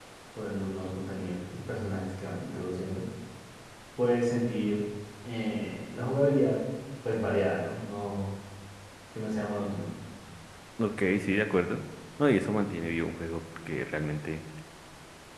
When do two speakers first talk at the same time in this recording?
none

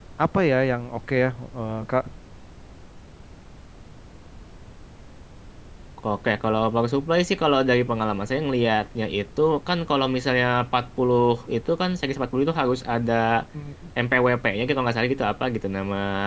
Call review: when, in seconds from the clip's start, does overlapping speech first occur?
none

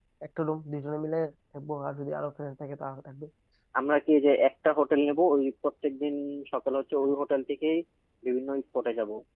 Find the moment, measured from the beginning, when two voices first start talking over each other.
none

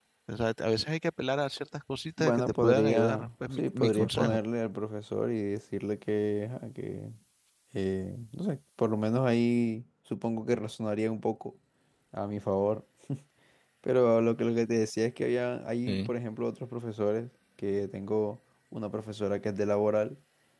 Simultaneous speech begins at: 2.2 s

